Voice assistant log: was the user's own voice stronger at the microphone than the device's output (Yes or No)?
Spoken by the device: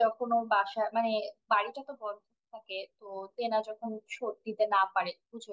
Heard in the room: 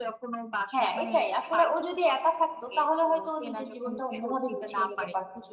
Yes